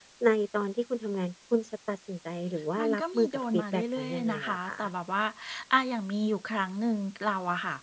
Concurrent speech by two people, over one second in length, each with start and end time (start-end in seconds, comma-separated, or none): 2.8-4.7